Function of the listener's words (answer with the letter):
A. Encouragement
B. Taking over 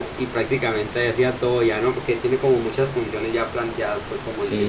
B